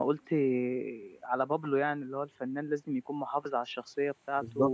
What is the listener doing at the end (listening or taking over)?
listening